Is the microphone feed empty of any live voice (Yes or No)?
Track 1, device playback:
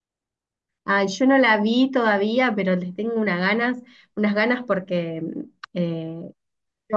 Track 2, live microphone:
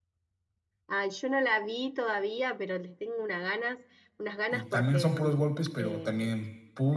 No